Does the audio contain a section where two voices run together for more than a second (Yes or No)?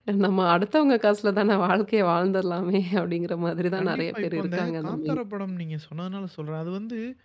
Yes